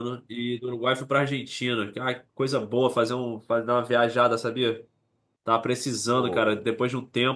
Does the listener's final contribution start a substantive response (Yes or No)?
No